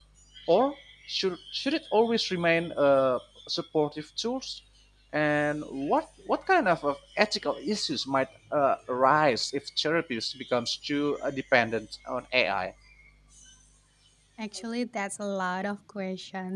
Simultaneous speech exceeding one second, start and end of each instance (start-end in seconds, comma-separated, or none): none